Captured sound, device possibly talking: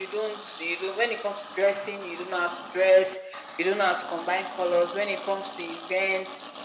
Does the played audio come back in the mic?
Yes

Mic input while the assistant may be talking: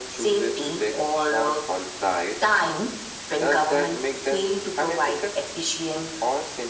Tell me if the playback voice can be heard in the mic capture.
Yes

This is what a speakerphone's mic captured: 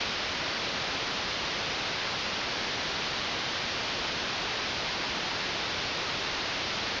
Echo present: No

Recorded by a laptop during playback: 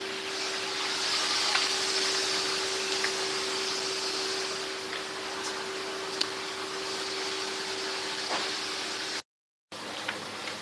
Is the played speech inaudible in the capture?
Yes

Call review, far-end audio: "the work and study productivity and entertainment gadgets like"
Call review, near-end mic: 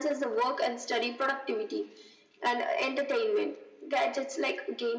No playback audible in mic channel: No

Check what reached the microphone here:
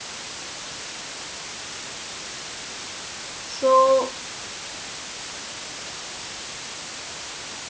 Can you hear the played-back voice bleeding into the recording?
No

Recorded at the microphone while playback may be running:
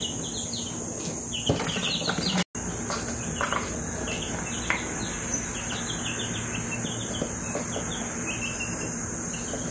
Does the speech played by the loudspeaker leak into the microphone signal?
No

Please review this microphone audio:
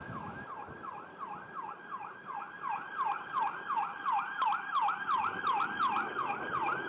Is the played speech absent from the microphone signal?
Yes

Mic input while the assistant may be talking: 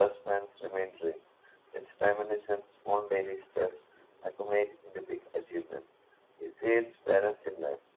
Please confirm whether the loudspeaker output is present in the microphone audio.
No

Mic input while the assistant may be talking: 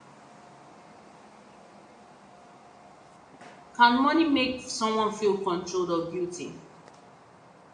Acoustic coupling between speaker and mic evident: No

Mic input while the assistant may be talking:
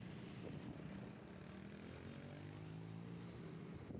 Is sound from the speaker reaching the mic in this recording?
No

